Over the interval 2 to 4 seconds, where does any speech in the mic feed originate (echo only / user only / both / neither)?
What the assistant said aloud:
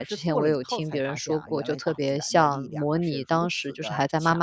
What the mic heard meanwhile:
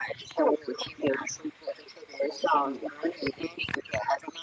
echo only